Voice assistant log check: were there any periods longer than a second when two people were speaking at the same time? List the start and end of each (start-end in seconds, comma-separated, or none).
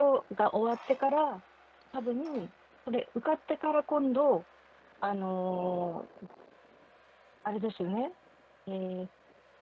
none